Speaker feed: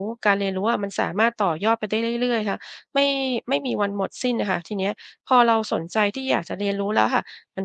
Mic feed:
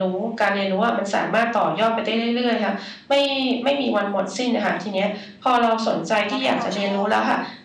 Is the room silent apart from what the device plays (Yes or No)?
No